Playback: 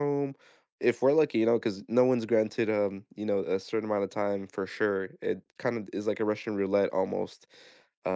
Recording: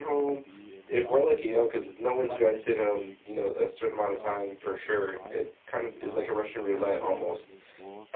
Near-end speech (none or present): present